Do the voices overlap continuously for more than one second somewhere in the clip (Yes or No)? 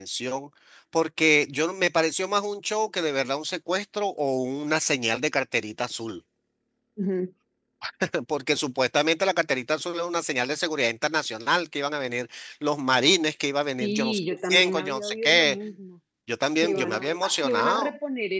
Yes